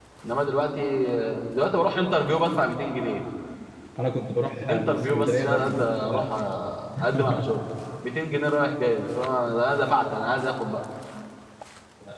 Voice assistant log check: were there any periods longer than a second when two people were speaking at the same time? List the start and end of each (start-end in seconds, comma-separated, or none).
4.7-6.3